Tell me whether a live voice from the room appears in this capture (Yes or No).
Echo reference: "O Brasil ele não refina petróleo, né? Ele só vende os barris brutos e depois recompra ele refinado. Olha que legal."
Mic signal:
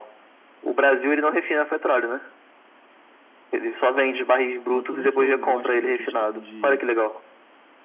Yes